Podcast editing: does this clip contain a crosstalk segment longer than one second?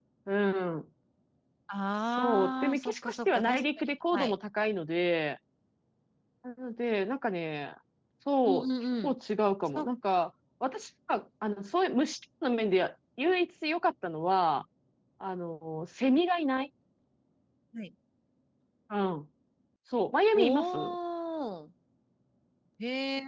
Yes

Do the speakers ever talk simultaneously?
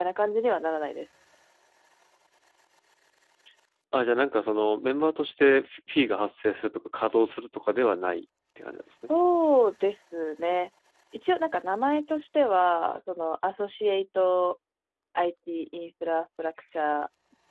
No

